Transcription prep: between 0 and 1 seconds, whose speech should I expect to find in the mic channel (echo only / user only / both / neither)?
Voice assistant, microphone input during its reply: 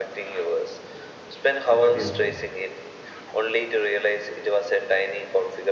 echo only